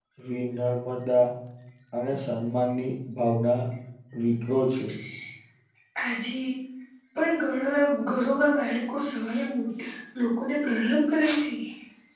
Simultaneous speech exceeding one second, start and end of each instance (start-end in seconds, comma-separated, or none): none